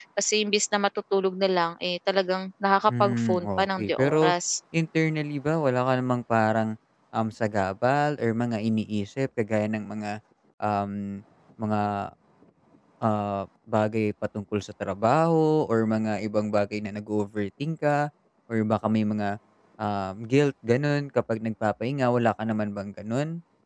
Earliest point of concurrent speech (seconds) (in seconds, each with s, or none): 2.9 s